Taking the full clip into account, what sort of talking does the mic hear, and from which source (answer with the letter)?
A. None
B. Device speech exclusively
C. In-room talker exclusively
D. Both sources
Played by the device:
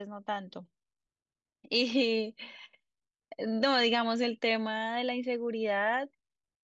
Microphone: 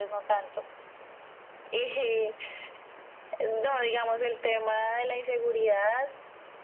B